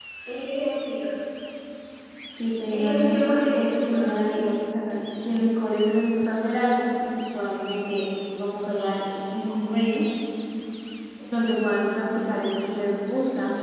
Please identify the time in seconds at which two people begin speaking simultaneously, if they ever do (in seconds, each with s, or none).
2.7 s